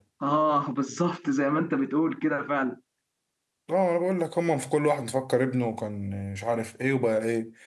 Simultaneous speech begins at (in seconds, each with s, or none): none